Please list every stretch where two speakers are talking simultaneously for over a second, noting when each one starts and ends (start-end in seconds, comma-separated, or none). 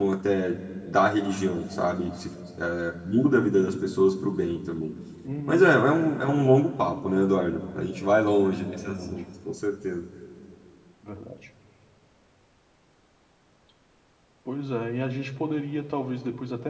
none